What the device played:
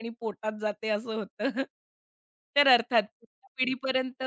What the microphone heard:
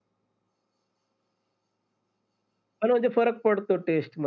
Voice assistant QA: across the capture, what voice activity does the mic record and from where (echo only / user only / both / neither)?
user only